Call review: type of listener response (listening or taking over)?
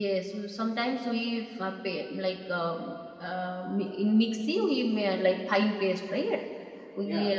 listening